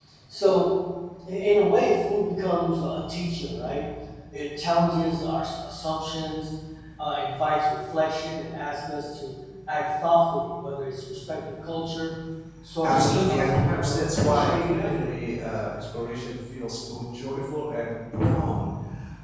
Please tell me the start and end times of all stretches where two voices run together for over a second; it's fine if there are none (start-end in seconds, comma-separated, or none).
12.8-15.1